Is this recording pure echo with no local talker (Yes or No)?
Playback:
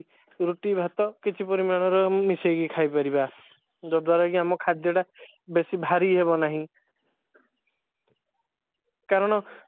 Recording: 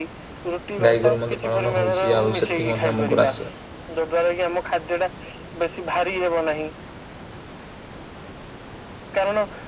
No